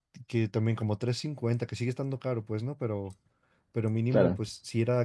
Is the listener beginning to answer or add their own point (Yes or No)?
No